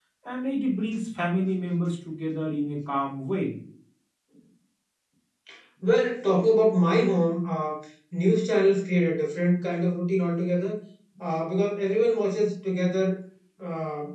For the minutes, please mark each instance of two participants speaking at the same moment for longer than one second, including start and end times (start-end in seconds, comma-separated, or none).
none